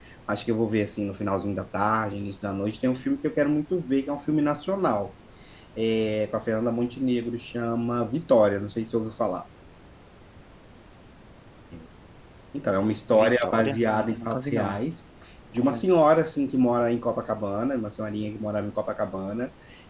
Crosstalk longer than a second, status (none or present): present